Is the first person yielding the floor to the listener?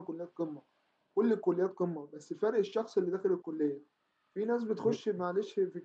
No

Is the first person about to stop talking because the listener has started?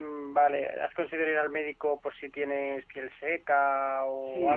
Yes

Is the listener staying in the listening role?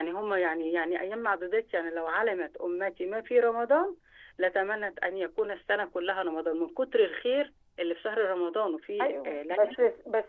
No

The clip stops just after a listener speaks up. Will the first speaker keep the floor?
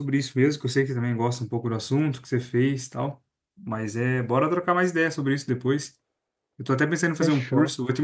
Yes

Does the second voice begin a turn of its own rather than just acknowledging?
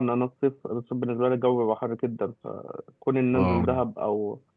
No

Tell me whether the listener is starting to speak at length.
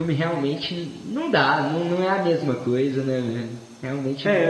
Yes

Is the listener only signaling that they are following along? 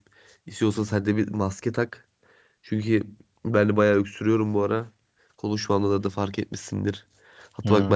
Yes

